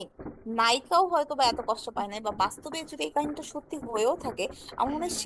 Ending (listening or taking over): listening